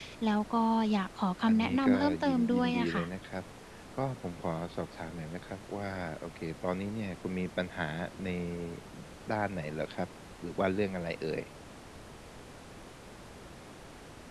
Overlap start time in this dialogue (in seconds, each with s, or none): 1.5 s